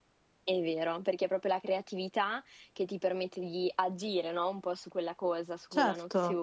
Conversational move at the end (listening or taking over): listening